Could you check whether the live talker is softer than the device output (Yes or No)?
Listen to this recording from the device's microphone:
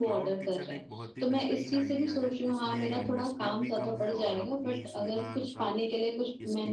Yes